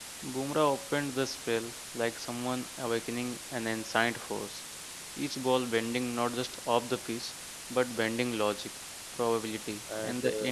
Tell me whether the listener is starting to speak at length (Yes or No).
No